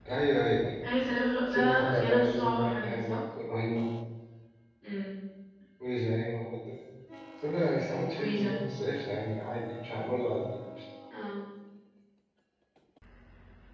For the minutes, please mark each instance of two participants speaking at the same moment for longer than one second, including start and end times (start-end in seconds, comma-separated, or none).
1.5-3.2